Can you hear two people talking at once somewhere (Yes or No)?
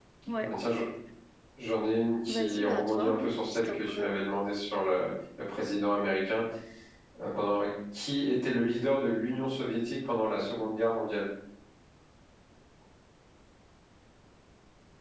Yes